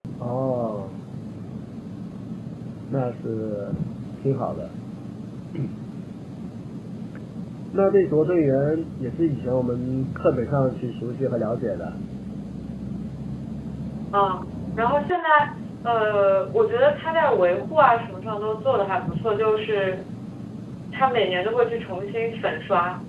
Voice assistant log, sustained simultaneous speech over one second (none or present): none